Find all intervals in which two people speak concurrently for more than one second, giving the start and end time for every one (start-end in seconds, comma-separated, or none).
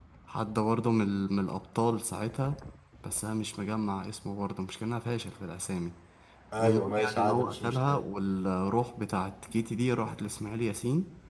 6.6-8.0